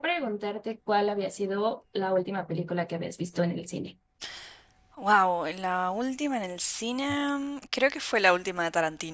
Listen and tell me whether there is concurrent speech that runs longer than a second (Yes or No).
No